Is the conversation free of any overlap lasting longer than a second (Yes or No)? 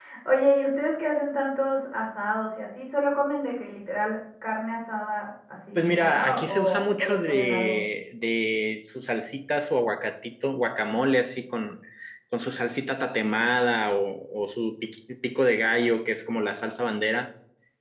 No